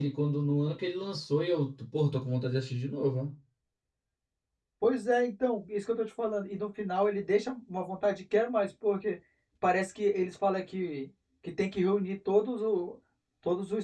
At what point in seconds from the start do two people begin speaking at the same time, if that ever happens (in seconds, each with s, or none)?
none